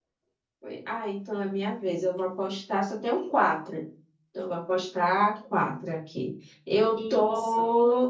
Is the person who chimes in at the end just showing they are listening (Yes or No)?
Yes